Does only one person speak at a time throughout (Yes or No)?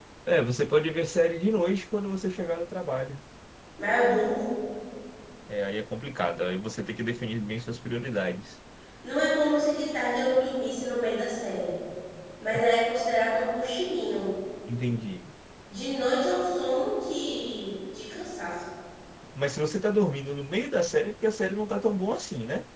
Yes